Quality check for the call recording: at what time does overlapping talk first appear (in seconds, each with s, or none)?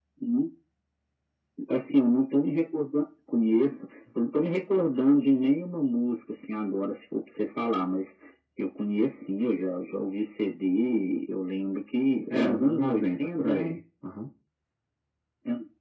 12.3 s